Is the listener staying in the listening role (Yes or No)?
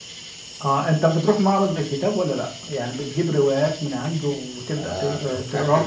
No